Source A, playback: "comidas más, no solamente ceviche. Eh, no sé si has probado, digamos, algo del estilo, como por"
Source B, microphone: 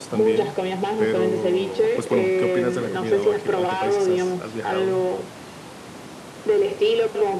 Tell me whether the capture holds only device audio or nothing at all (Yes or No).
No